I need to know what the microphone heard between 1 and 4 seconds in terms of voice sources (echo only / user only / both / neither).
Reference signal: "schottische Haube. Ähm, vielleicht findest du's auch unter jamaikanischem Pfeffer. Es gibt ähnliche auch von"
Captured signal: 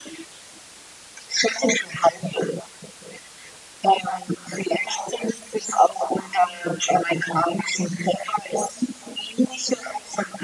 echo only